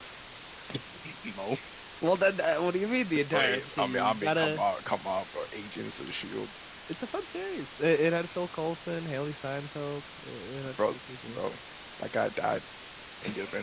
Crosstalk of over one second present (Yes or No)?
Yes